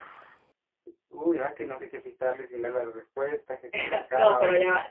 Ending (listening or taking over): taking over